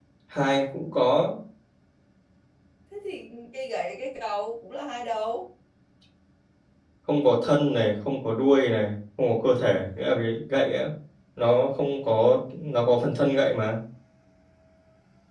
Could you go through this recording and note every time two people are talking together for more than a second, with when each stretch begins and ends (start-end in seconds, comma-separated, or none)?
none